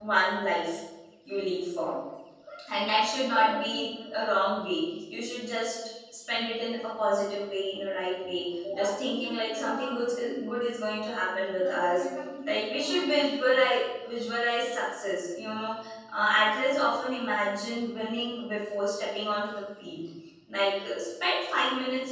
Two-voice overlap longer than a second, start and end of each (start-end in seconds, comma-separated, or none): none